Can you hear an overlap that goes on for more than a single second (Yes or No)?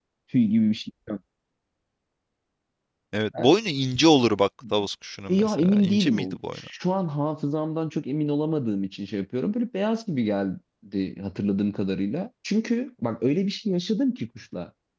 Yes